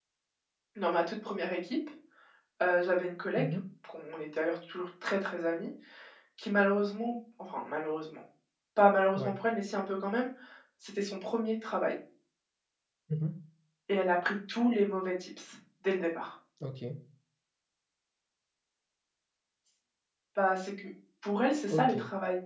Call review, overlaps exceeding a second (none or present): none